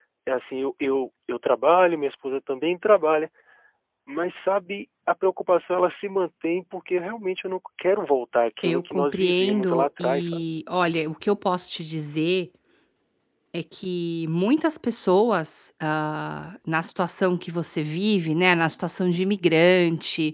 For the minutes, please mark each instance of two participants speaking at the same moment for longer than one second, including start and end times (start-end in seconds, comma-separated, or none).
8.6-10.4